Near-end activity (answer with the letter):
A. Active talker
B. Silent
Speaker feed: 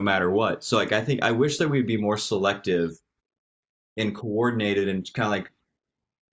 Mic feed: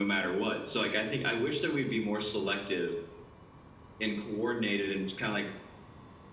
B